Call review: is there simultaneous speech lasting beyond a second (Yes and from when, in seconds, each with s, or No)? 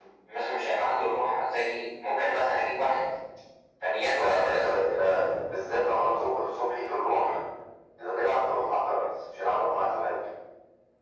Yes, from 4.1 s